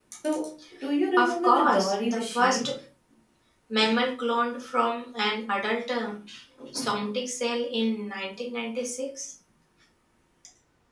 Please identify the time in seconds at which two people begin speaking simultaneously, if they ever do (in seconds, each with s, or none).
1.2 s